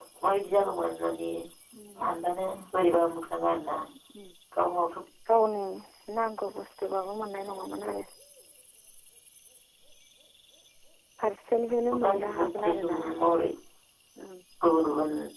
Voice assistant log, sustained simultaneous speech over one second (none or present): present